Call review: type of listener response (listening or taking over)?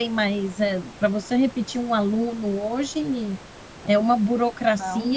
listening